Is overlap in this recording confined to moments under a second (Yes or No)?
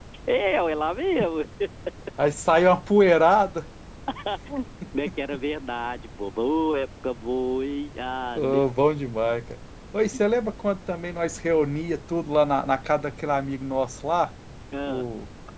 Yes